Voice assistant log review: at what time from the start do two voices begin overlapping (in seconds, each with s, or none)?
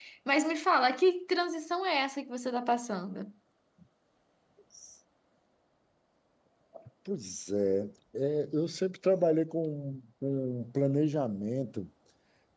none